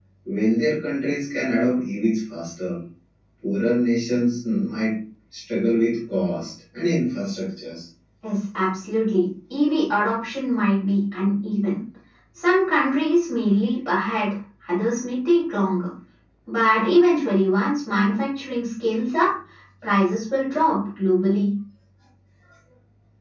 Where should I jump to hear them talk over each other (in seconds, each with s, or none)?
none